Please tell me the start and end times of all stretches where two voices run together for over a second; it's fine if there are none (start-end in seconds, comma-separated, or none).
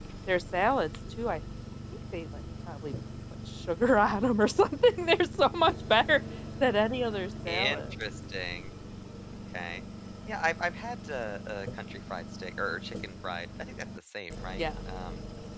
none